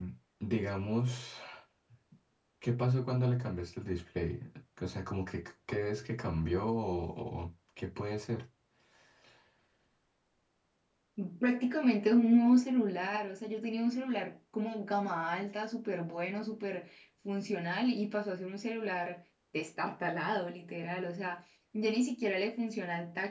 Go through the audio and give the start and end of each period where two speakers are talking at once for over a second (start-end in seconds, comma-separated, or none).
none